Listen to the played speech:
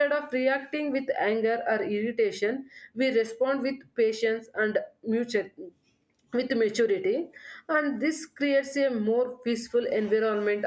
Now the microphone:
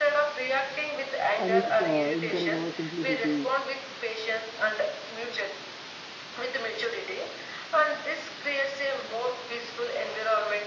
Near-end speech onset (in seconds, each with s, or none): 1.4 s